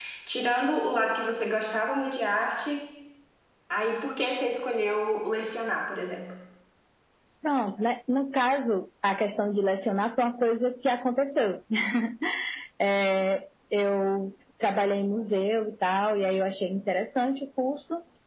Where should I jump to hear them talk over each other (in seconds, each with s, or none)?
none